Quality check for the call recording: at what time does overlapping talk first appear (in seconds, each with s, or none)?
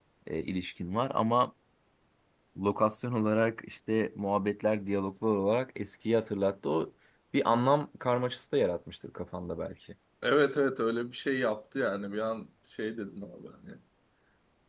none